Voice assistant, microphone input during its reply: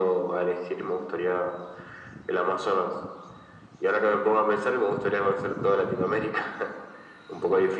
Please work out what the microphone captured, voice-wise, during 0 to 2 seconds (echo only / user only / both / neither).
echo only